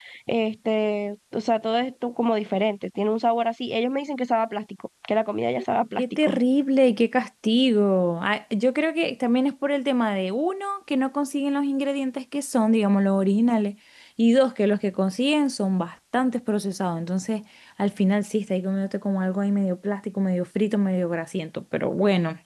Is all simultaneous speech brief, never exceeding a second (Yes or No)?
Yes